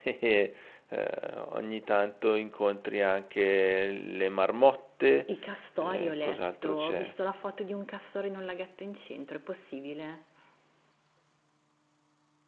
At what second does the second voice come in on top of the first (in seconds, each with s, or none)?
5.9 s